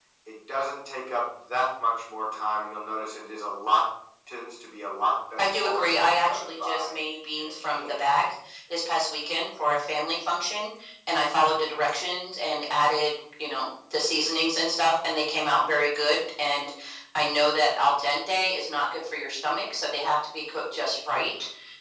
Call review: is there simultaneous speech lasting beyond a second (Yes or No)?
Yes